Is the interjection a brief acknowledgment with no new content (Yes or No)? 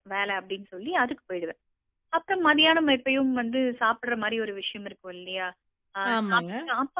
Yes